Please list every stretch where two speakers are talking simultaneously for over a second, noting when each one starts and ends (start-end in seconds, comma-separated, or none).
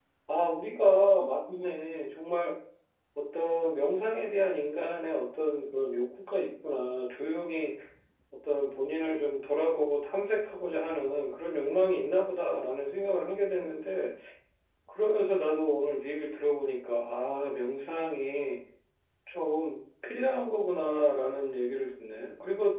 none